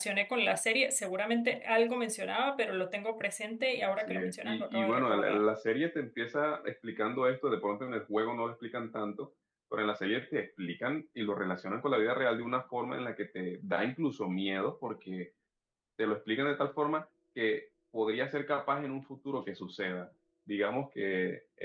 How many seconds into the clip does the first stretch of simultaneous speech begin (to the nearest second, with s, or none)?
4 s